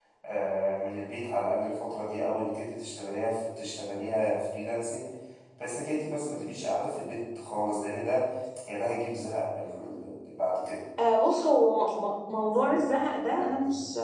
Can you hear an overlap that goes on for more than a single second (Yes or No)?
No